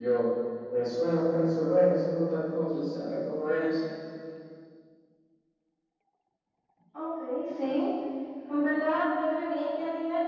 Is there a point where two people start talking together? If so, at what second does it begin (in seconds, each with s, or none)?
none